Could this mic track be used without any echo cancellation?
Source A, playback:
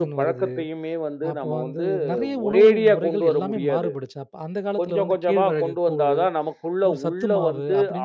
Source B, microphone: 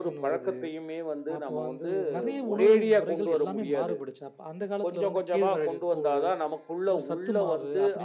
No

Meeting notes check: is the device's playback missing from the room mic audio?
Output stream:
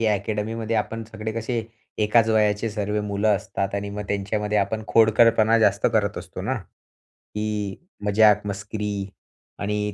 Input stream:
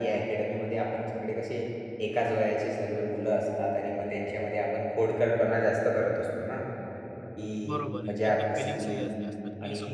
No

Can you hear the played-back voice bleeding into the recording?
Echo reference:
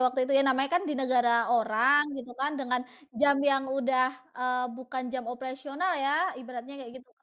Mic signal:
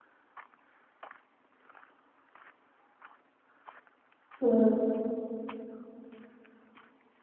No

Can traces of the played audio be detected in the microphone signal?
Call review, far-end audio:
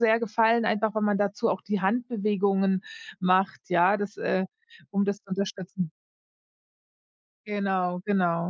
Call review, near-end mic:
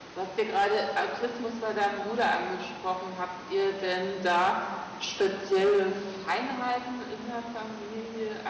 No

